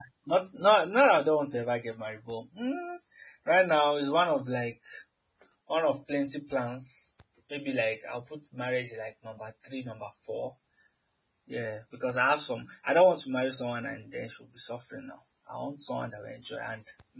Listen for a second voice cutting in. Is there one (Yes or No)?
No